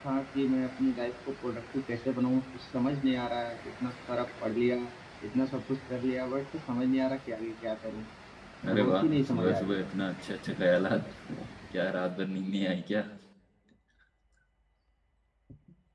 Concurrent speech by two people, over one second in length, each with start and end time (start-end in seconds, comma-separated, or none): 8.8-10.1